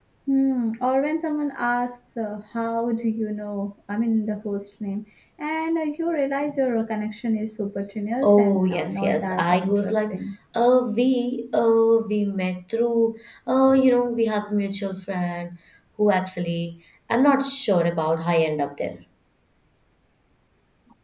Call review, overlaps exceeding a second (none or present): present